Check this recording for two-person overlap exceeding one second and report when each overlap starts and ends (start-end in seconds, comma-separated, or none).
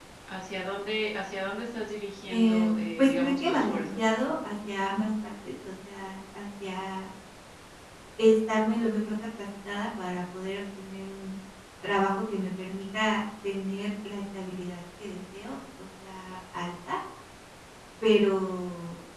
2.4-4.0